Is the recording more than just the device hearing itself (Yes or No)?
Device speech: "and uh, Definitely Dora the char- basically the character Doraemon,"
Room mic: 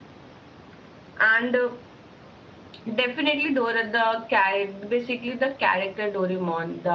No